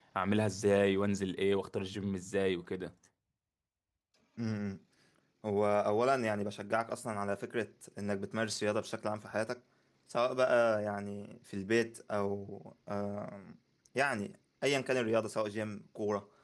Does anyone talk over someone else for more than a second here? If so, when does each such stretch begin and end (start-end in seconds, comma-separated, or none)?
none